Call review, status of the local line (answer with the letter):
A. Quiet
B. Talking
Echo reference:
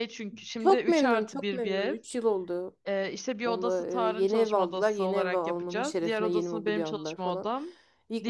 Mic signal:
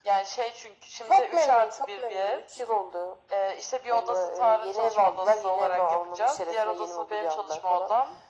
A